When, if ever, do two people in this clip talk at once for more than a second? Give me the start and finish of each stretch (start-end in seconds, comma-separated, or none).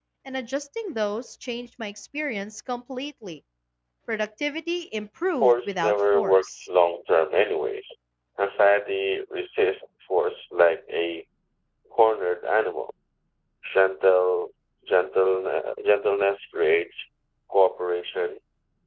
5.4-6.7